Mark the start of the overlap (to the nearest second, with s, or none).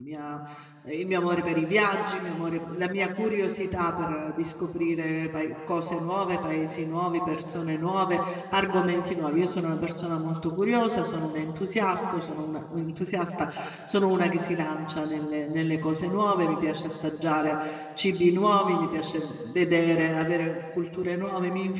none